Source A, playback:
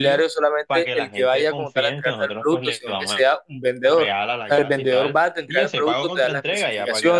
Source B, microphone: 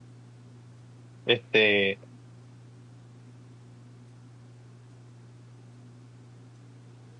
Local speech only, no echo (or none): este,